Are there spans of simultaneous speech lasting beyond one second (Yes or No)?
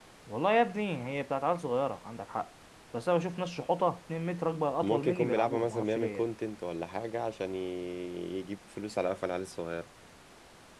Yes